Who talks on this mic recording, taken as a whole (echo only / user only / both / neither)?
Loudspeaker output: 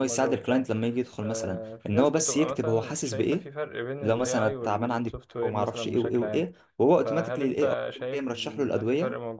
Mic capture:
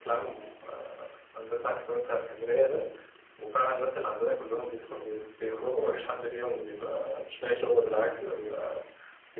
user only